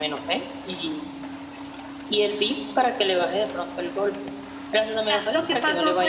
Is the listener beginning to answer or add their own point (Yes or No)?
Yes